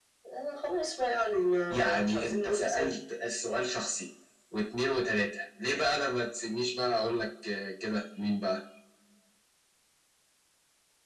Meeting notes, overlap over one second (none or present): present